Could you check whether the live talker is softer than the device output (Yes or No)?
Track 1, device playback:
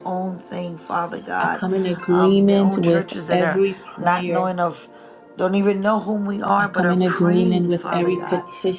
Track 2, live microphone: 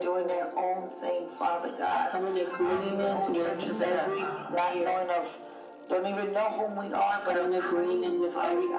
Yes